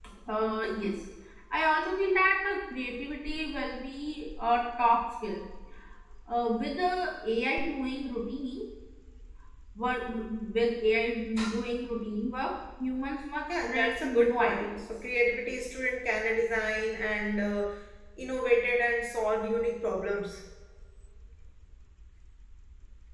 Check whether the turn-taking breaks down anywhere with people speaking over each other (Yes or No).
Yes